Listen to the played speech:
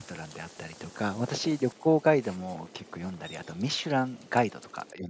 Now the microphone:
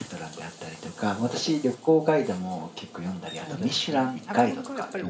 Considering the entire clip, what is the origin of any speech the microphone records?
both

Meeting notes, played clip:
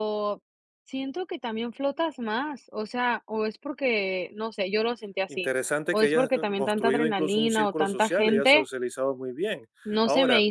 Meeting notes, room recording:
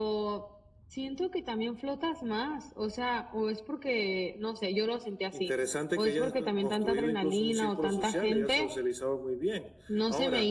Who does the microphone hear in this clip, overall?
echo only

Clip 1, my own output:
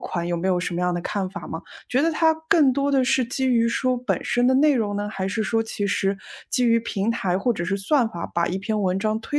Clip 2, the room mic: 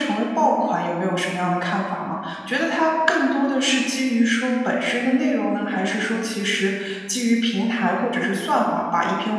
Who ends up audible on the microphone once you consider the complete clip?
echo only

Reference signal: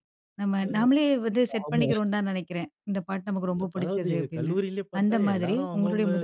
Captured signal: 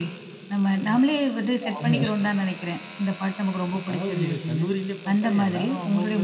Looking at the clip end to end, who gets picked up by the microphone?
echo only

